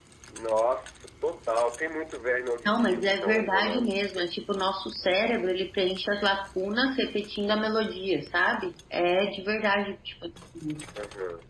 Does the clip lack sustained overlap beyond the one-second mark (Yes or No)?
No